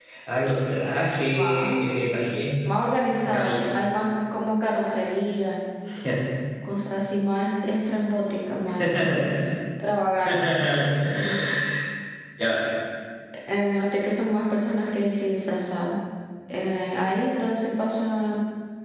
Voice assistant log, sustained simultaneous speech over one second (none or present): none